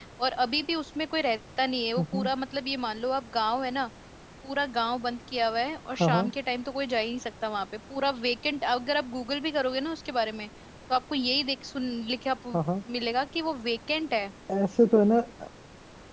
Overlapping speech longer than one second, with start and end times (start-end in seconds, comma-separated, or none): none